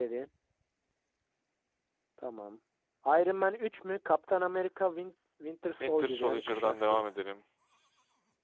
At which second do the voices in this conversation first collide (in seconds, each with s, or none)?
5.8 s